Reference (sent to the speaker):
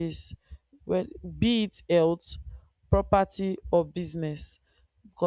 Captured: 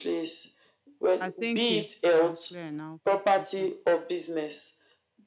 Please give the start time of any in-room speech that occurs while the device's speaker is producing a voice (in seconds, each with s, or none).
1.2 s